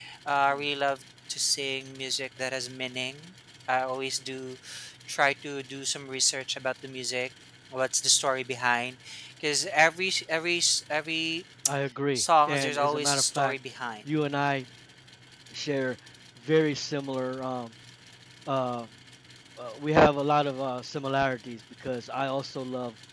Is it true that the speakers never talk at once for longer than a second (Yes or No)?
No